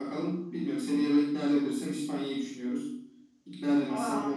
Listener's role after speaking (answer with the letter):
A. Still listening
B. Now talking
A